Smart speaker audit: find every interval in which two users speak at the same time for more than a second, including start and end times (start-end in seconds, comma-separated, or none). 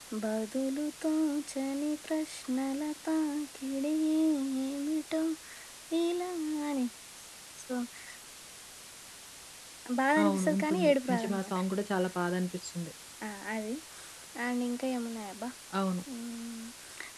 10.2-11.6